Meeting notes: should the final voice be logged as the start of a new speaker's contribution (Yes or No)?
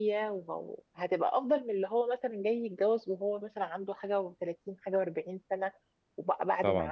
No